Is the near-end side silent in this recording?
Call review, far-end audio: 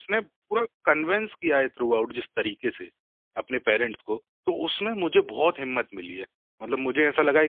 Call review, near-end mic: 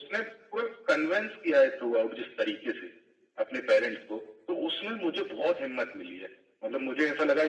Yes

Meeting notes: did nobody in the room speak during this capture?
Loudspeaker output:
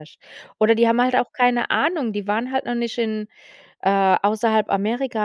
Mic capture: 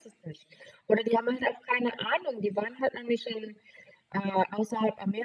Yes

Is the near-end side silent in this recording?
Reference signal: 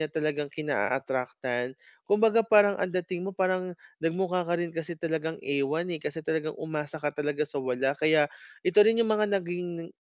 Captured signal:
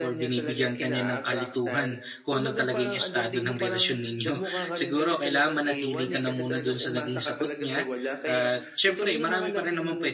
No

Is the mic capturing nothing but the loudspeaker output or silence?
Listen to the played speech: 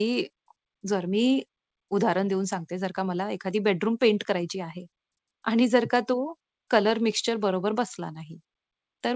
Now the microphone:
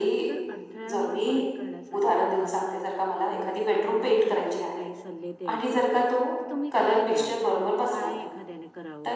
No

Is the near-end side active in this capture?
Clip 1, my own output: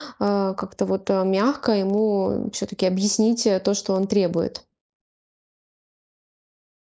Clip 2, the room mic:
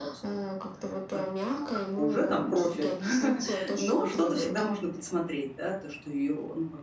Yes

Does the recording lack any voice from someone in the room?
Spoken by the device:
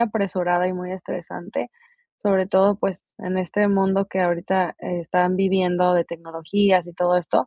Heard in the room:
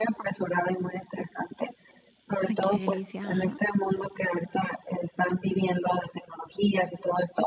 No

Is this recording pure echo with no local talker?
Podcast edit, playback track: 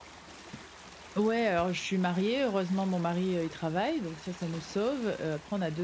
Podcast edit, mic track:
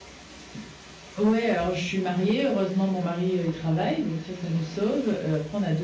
Yes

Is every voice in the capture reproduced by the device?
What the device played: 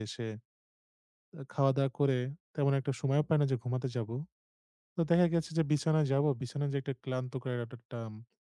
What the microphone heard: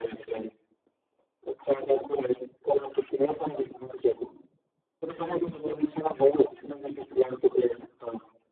No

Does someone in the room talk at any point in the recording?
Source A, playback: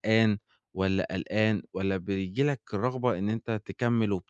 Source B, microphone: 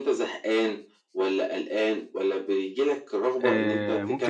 Yes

